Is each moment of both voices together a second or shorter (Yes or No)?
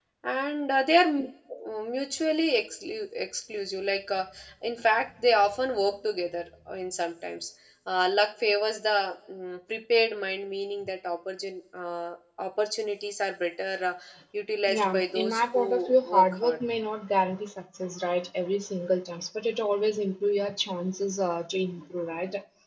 No